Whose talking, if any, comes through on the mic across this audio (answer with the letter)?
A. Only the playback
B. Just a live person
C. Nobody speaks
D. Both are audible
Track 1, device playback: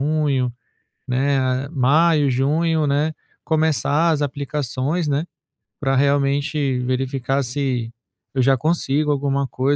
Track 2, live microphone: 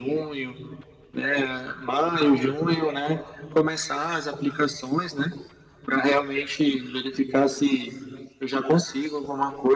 A